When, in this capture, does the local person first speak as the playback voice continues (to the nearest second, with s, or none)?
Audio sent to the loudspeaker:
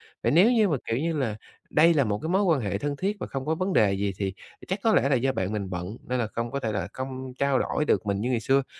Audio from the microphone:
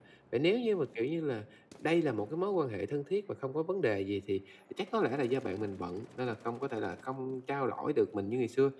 none